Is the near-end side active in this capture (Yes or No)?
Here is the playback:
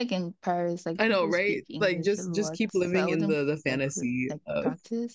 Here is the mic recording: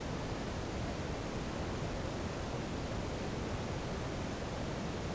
No